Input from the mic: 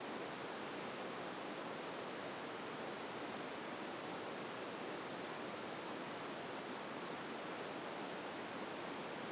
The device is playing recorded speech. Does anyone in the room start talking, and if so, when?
none

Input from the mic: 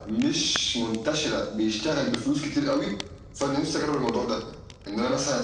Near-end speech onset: none

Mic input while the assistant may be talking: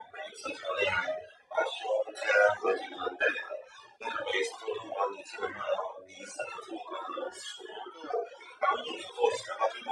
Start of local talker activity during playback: none

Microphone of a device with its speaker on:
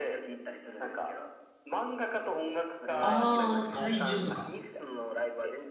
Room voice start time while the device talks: 3.0 s

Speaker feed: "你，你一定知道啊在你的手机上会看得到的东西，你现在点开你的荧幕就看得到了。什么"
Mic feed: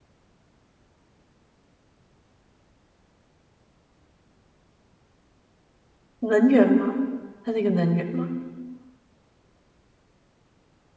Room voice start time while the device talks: 6.2 s

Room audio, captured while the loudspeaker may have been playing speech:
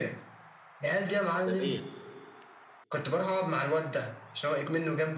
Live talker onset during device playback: 1.5 s

